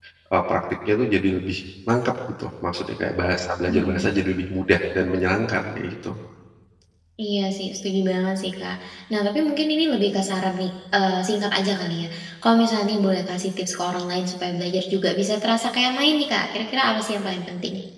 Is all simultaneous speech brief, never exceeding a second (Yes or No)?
Yes